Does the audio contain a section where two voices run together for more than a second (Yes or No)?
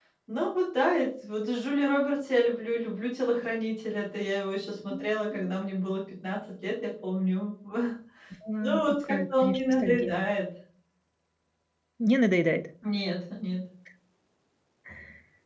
Yes